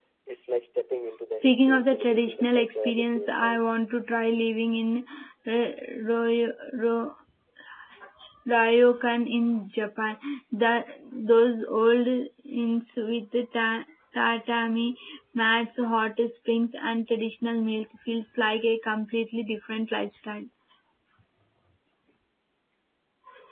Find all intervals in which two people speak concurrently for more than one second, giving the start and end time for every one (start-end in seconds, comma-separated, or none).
1.4-3.7